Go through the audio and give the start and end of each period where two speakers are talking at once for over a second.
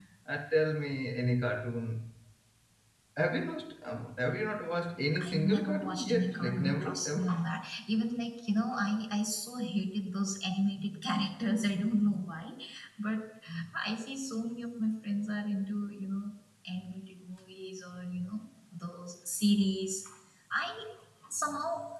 5.2-7.3

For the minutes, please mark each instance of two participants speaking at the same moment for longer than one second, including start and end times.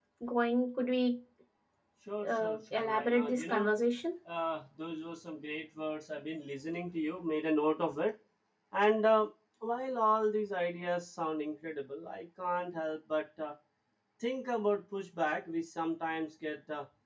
2.2-3.7

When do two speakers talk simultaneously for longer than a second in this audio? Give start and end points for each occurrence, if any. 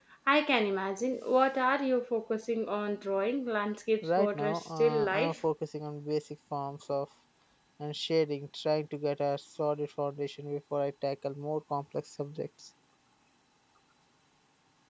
4.0-5.5

